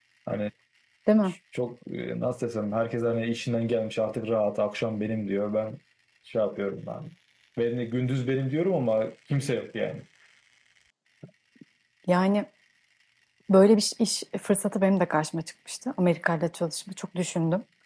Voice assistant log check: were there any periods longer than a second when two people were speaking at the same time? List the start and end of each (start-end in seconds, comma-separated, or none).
none